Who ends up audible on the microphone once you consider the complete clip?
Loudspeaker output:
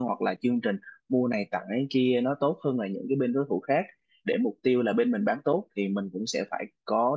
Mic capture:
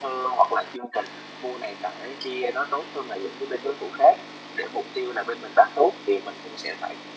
echo only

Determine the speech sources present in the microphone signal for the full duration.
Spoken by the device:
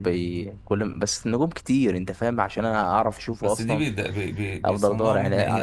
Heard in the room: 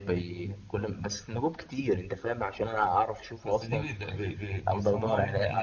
echo only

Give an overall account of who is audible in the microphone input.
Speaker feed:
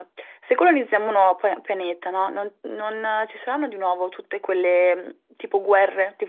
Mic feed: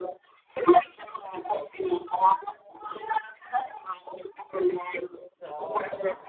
both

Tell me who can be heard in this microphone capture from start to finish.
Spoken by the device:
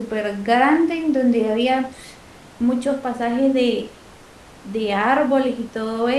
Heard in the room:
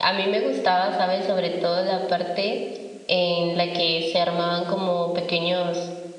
user only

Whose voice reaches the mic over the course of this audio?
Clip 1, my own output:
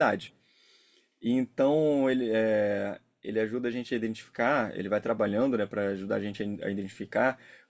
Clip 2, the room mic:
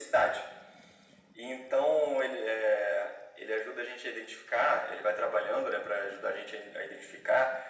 echo only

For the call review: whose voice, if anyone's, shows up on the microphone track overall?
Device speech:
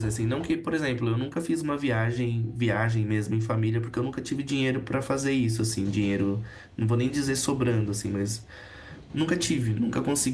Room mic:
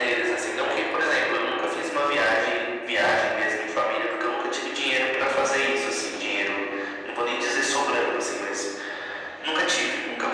echo only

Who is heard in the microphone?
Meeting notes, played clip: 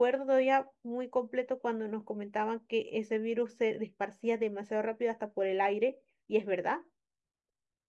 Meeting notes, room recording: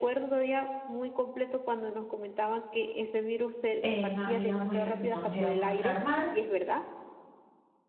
both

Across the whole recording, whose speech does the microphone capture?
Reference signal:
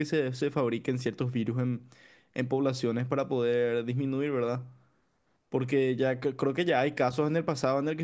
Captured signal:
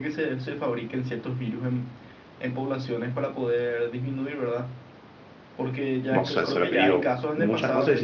both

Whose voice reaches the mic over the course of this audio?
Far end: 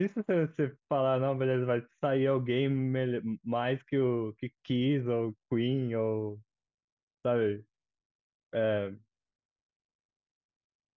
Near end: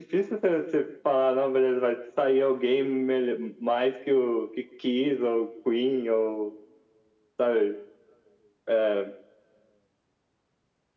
echo only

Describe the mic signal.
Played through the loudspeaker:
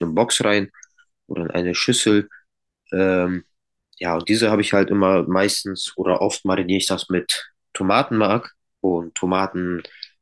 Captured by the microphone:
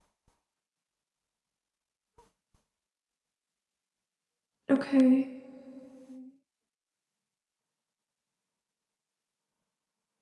user only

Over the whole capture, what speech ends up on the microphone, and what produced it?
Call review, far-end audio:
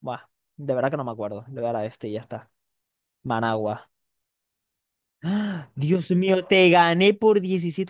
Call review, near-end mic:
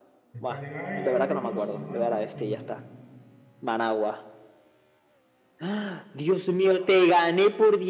both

